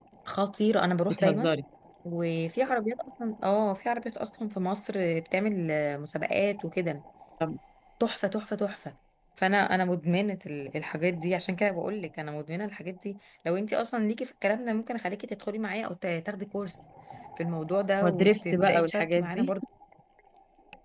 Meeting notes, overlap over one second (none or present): present